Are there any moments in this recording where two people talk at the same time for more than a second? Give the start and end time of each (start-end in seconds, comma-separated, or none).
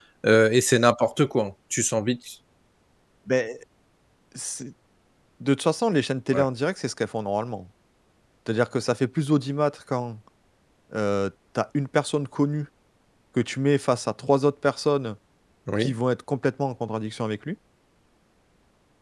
none